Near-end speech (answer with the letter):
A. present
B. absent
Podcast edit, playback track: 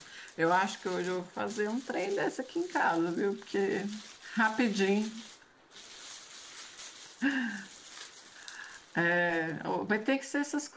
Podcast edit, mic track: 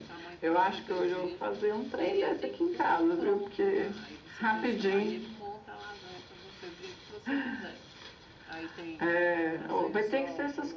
A